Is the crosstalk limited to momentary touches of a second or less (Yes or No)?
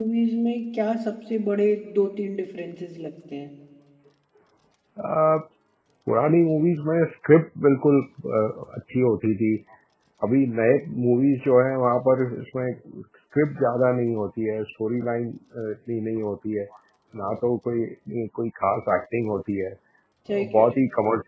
Yes